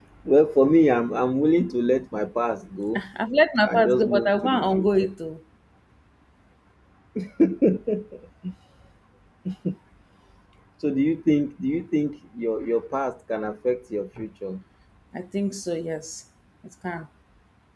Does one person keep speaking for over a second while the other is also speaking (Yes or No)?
Yes